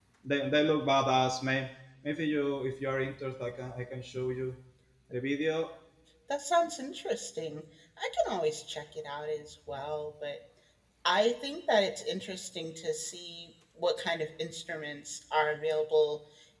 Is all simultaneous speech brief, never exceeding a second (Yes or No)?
Yes